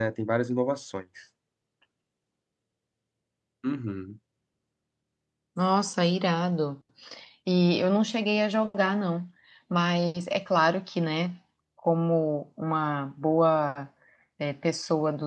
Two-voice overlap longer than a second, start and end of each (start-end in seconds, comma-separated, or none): none